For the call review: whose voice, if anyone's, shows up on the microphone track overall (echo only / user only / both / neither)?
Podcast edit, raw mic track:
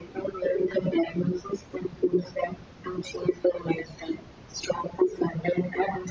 echo only